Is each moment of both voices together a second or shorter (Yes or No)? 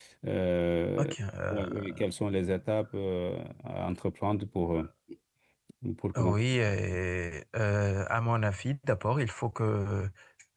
Yes